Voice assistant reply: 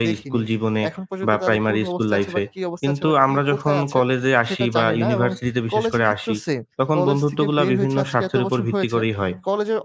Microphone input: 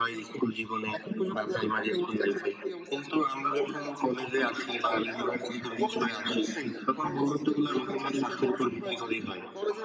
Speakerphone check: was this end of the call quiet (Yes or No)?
Yes